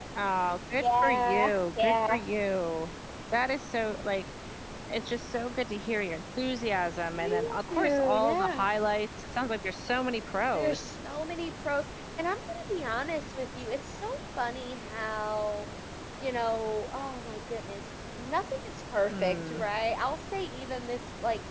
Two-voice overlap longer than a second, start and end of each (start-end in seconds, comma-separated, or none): 0.8-2.2, 7.2-8.7